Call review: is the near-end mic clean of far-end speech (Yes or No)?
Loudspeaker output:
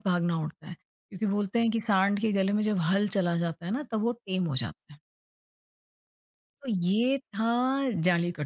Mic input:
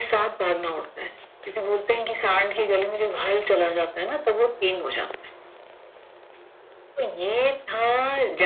No